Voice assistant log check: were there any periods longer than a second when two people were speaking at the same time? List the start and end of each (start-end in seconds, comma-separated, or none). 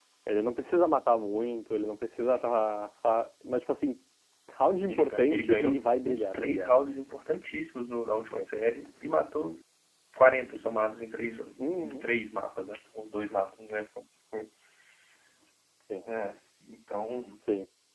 4.9-6.7